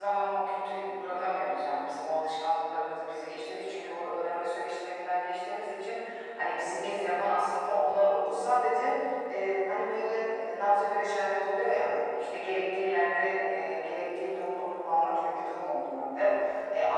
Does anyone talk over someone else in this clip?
No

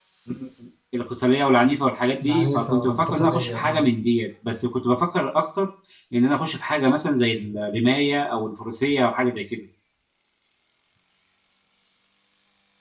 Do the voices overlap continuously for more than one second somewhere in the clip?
Yes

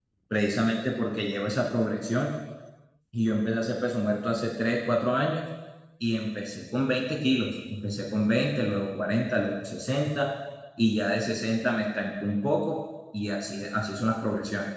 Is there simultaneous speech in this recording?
No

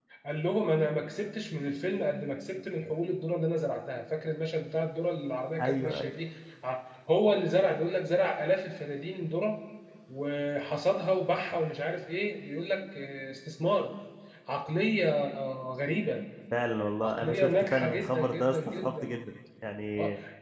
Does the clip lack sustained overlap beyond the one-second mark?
No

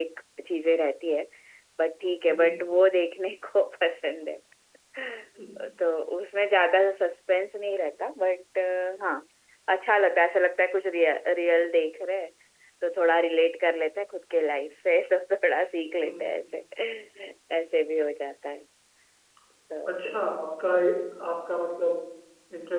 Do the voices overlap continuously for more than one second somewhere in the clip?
No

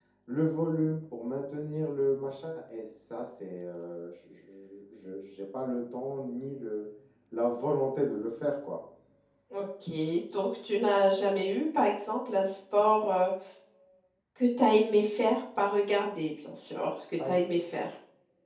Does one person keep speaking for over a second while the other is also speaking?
No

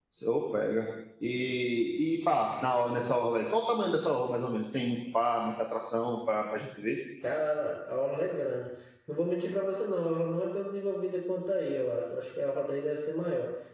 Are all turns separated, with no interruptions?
Yes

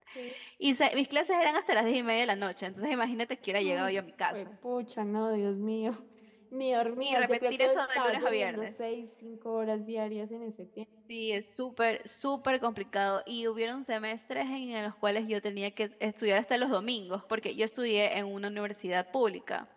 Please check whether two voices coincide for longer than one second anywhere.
Yes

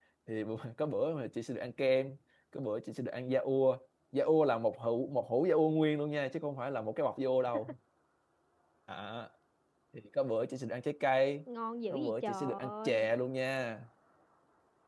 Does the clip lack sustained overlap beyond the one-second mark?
No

